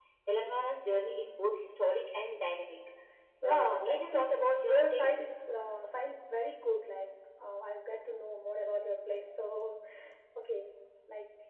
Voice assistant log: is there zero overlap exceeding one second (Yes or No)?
No